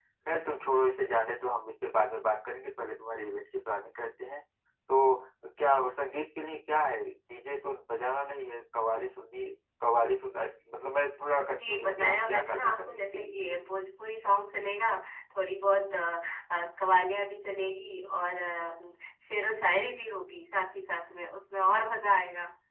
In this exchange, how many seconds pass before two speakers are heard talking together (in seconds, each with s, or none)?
11.6 s